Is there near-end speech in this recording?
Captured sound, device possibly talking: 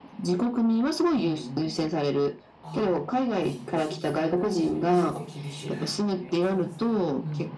Yes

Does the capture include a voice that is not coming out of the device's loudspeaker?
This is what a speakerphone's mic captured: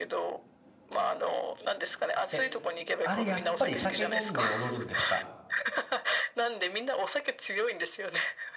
Yes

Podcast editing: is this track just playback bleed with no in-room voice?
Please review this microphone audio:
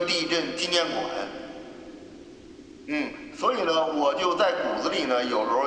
Yes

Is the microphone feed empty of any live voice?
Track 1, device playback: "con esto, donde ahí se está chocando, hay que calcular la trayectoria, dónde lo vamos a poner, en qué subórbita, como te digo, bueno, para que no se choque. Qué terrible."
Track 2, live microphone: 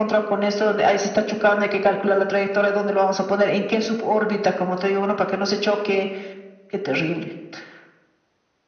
Yes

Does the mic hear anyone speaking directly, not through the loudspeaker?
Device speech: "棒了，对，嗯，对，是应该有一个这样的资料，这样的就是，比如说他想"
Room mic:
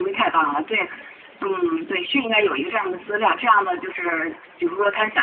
No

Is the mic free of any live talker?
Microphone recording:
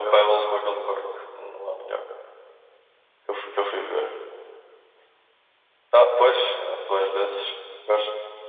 Yes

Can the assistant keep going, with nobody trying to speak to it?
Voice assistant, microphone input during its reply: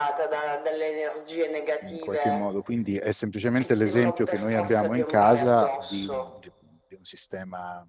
No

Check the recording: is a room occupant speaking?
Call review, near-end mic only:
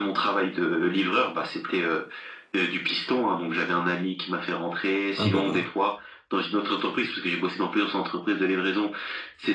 Yes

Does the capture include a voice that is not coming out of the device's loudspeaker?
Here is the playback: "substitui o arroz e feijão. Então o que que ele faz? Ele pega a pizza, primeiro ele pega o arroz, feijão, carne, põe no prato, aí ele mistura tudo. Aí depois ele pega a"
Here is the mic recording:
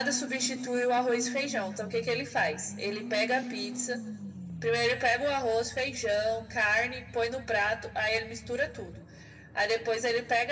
No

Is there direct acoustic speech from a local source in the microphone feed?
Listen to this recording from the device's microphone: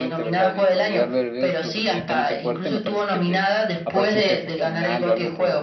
Yes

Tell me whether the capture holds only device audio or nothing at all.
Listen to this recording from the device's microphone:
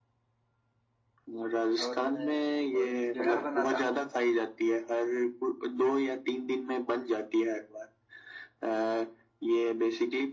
No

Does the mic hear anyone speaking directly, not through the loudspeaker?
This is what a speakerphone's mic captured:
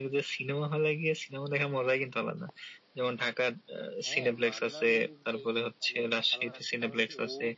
Yes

